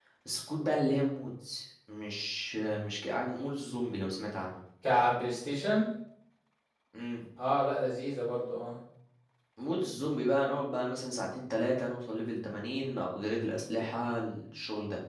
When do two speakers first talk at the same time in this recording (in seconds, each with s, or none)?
none